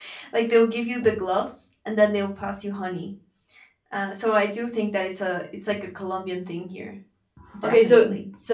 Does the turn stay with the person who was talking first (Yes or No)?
No